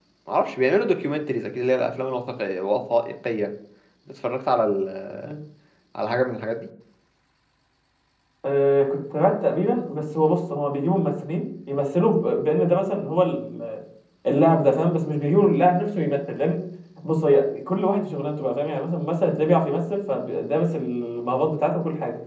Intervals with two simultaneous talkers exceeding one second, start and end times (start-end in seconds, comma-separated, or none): none